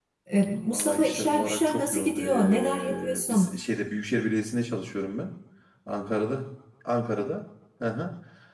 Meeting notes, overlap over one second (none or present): present